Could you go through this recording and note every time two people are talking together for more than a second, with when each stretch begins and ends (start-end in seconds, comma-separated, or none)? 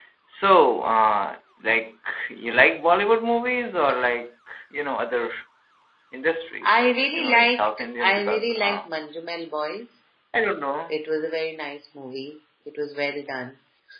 6.8-8.9